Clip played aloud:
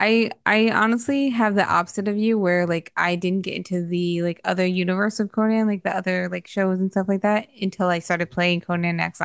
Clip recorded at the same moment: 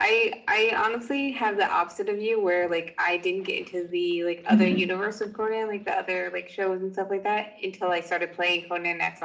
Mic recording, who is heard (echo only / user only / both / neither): both